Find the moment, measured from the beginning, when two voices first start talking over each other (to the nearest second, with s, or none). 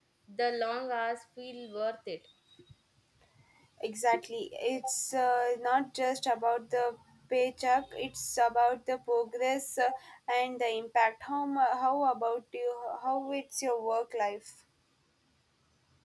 none